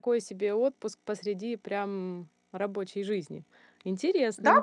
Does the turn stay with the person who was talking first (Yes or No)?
No